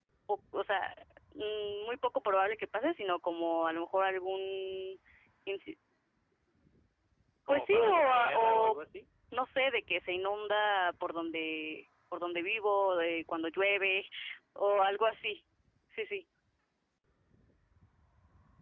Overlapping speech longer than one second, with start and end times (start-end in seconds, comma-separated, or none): 7.5-8.8